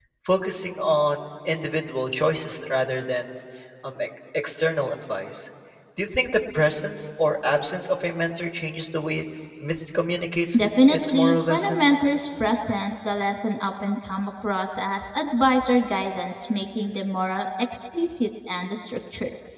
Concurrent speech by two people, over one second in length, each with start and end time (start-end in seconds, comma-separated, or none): 10.6-11.8